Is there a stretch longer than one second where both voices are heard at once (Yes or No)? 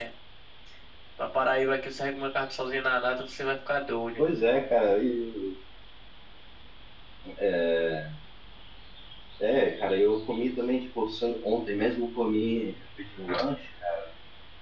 No